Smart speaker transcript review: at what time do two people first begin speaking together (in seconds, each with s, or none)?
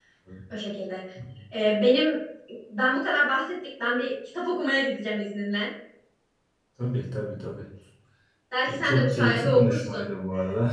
8.7 s